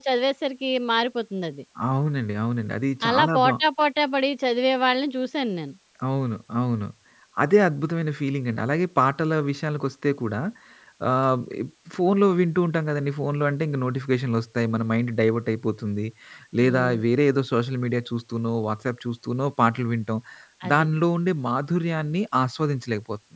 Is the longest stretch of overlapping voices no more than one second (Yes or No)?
Yes